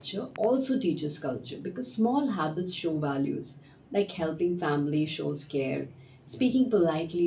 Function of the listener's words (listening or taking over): listening